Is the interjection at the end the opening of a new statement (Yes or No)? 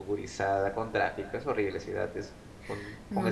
Yes